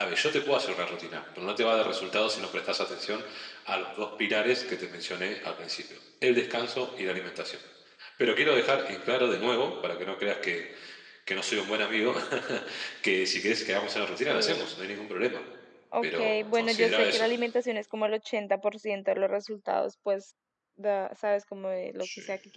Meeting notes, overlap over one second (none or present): present